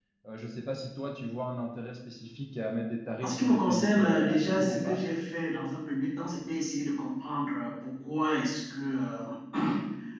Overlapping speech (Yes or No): Yes